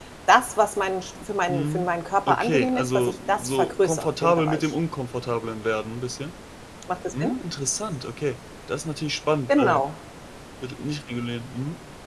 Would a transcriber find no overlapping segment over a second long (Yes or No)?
No